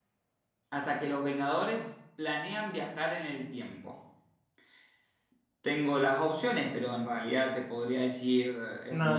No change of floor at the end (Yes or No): No